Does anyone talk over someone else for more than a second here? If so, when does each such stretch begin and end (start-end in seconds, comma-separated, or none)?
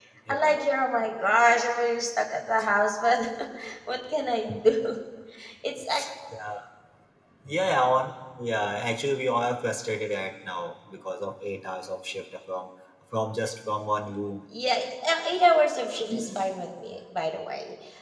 none